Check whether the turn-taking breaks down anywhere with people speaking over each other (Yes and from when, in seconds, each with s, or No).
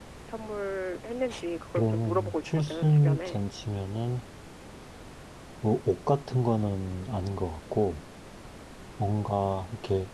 Yes, from 1.8 s